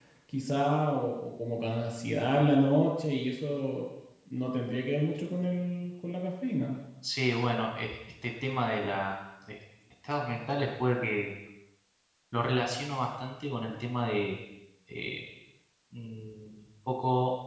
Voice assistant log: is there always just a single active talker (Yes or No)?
Yes